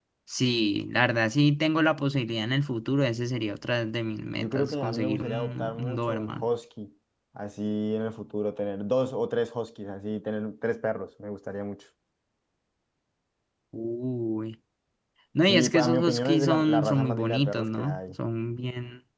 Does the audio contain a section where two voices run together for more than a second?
Yes, from 4.4 s

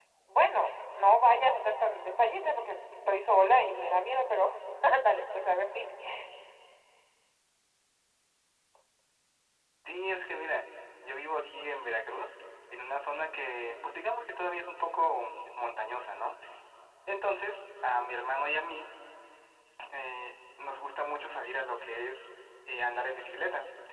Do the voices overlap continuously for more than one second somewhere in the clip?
No

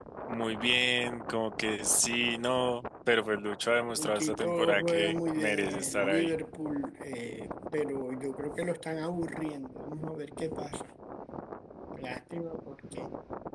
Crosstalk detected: Yes, from 4.0 s

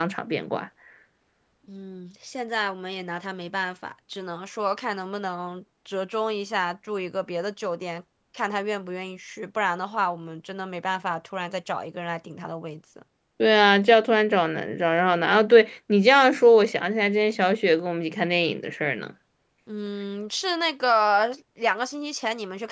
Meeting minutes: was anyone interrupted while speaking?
No

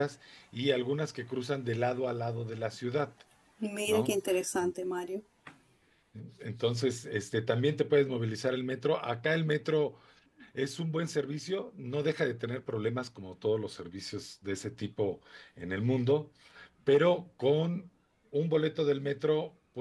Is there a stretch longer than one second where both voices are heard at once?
No

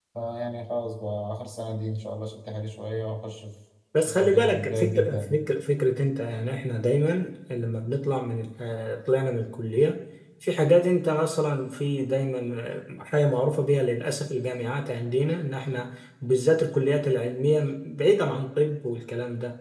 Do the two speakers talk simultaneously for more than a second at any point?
Yes, from 3.9 s

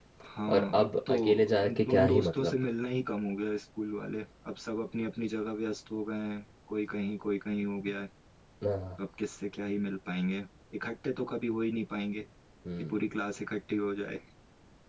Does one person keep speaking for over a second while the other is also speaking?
Yes, from 0.6 s

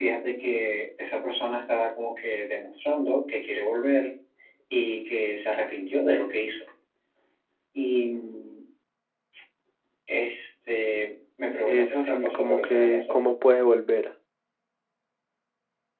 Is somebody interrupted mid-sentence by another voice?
Yes, from 11.7 s

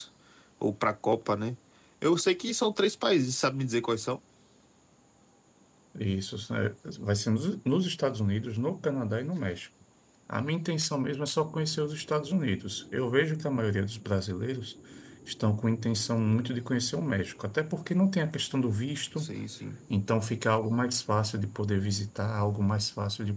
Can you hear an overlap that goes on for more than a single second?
No

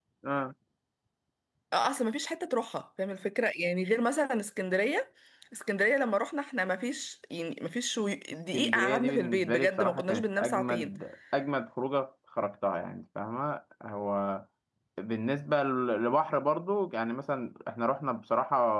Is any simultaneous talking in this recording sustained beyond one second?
Yes, from 8.5 s

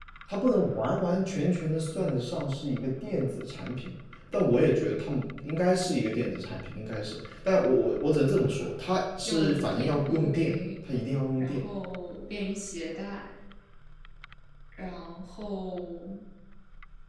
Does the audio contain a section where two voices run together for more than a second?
Yes, from 9.2 s

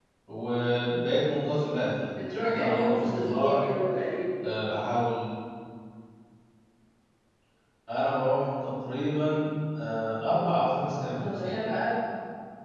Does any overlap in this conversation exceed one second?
Yes, from 2.4 s

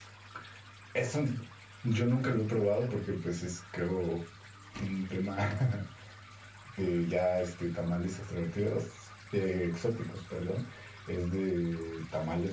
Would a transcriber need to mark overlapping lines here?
No

